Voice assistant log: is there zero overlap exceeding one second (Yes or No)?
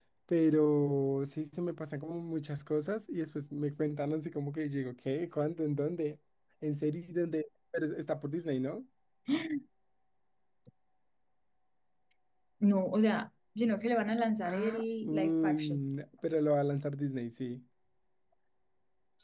No